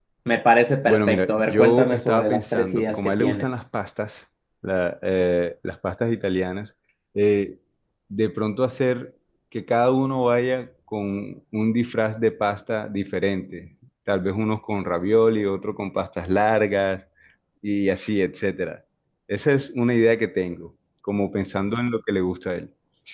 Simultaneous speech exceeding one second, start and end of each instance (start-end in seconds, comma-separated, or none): 0.8-3.5